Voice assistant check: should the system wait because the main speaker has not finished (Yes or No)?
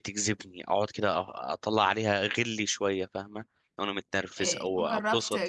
No